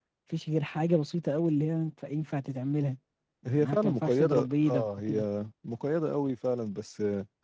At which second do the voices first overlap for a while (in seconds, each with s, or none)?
3.6 s